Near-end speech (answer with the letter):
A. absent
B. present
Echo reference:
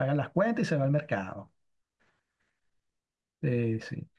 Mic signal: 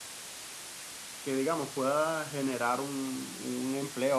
B